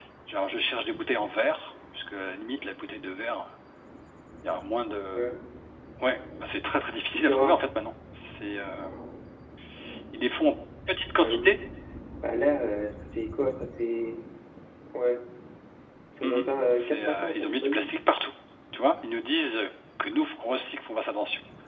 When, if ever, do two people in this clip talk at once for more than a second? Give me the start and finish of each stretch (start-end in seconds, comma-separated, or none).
16.2-17.9